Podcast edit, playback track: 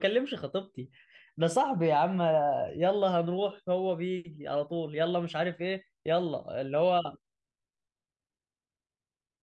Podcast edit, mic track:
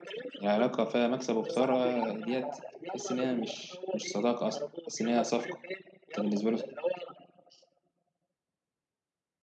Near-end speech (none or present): present